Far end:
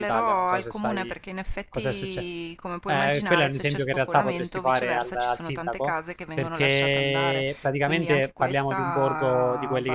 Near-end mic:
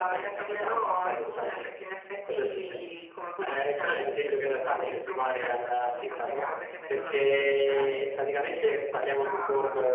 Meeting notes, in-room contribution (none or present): none